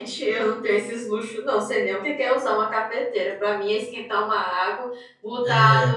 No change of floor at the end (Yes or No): Yes